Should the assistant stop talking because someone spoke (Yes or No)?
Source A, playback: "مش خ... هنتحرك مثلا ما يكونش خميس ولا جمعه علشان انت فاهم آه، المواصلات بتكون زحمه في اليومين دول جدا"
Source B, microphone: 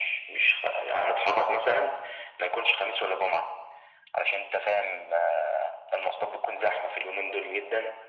No